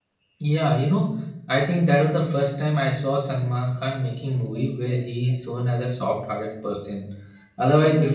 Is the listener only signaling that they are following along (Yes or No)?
Yes